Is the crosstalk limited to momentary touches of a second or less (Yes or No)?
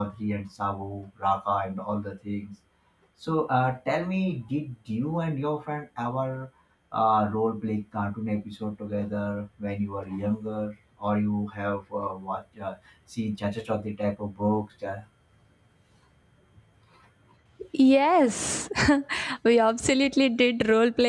Yes